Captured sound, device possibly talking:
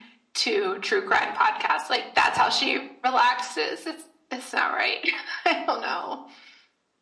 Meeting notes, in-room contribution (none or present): none